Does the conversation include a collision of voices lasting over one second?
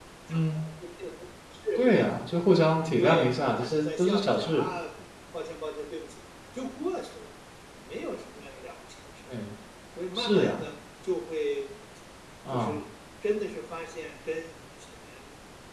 Yes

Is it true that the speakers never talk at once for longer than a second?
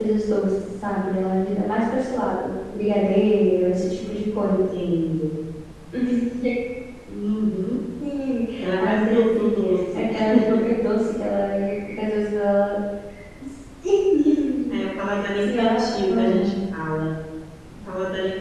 No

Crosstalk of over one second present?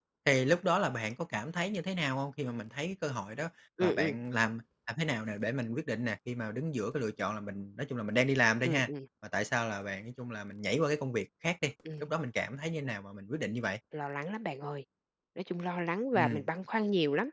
No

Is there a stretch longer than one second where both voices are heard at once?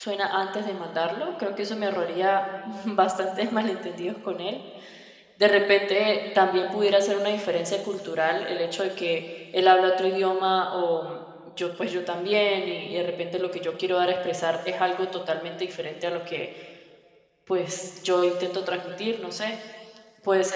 No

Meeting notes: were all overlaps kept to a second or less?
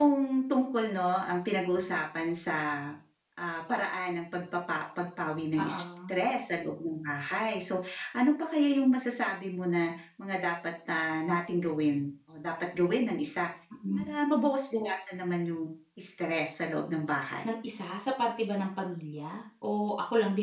Yes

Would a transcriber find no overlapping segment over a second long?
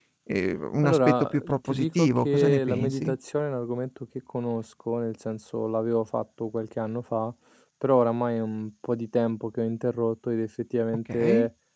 No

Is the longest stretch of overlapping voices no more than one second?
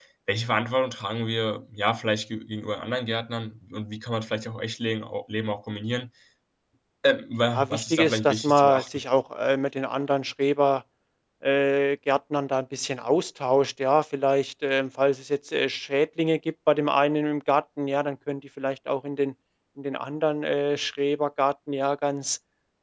No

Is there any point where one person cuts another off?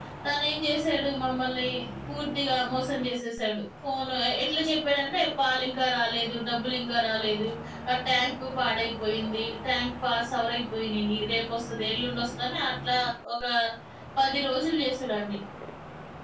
No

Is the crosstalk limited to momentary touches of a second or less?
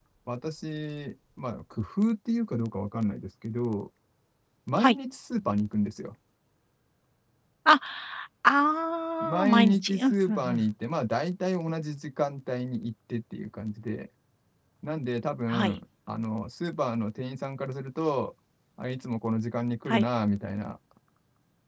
No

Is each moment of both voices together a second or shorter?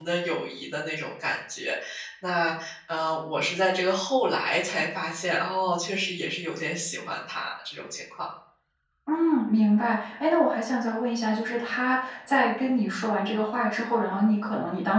Yes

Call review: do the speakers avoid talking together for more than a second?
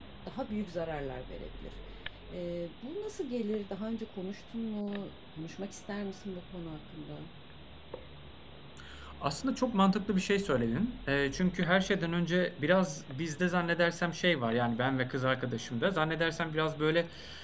Yes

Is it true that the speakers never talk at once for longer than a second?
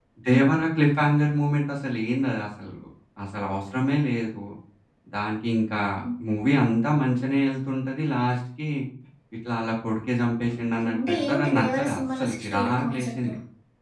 No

